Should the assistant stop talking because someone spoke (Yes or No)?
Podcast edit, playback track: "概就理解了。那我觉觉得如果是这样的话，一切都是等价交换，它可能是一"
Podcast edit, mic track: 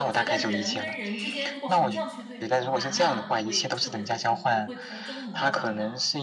Yes